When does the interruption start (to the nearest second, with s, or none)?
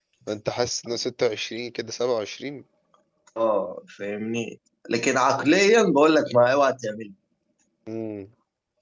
none